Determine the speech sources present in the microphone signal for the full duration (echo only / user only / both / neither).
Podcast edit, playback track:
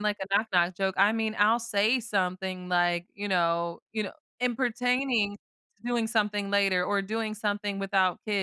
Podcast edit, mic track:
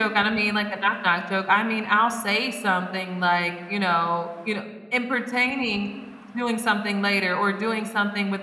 echo only